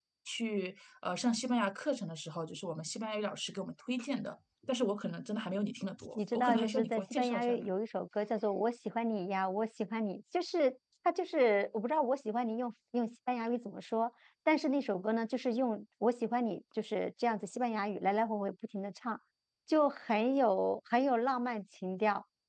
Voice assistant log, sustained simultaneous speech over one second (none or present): present